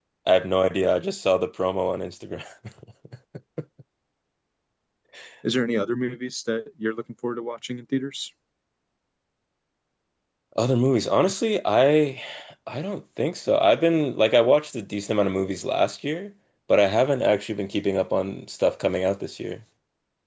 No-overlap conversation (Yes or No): Yes